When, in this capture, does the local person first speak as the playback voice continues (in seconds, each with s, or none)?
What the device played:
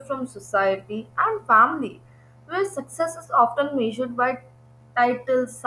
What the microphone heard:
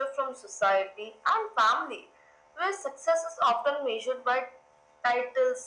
none